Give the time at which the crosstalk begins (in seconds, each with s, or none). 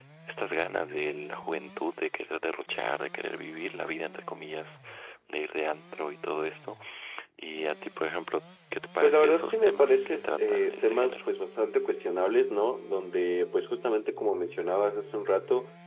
9.0 s